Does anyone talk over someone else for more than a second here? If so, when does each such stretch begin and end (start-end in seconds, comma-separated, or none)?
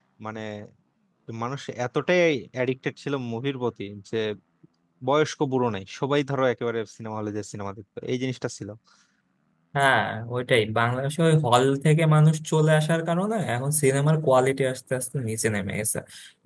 none